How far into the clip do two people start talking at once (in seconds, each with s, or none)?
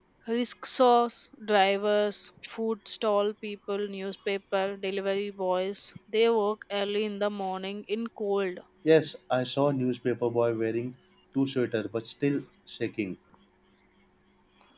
none